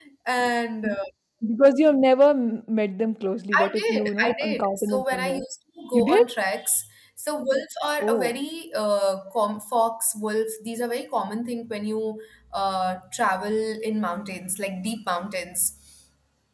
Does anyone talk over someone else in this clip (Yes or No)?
Yes